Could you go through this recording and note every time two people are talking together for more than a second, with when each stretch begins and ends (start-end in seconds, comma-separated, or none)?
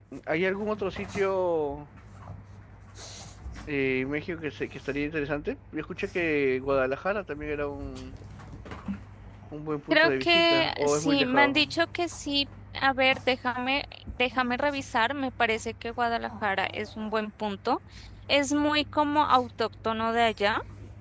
9.9-11.5